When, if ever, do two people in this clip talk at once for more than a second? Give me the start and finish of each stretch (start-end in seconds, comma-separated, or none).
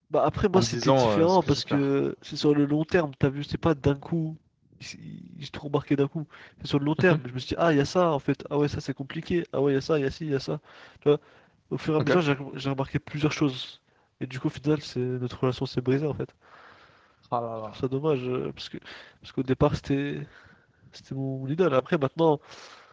0.5-1.8